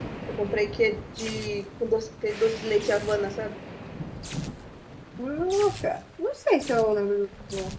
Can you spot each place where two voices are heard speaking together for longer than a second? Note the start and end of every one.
none

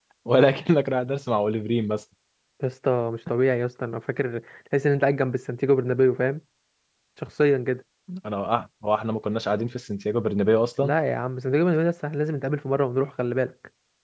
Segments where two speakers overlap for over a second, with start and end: none

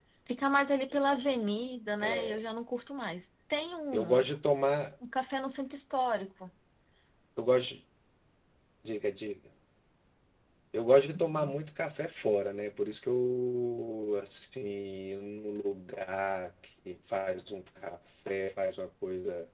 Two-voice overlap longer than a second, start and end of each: none

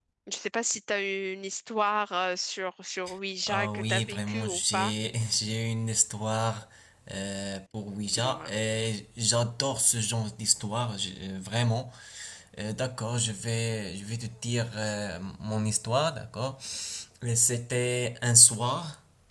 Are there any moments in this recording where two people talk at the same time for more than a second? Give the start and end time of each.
3.5-4.9

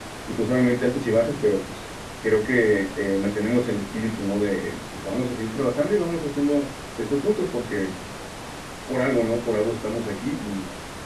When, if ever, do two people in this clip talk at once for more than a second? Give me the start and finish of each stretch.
none

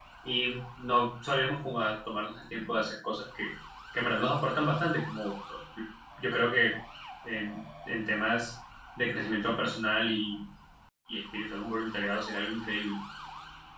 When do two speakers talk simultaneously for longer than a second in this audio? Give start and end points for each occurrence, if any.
none

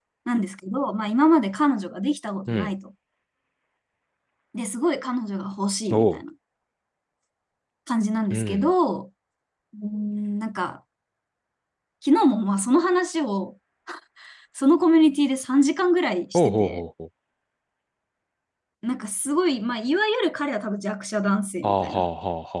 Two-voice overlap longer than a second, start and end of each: none

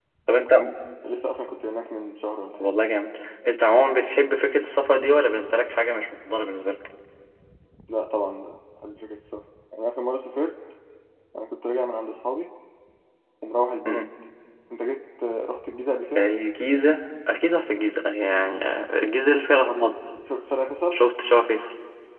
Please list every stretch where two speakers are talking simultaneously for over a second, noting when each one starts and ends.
none

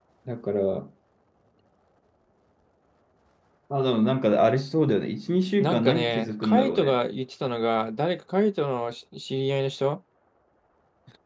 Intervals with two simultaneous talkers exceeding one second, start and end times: 5.6-7.0

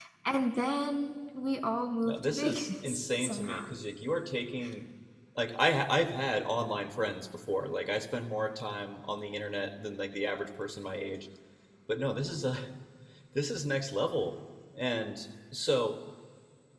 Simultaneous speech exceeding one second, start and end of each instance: 2.0-3.6

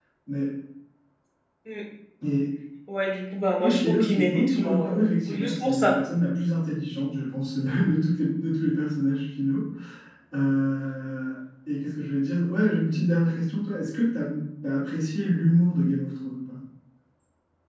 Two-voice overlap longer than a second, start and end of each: 3.6-6.0

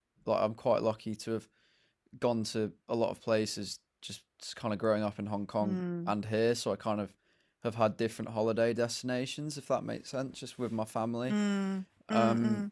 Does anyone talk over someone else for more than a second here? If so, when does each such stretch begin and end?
none

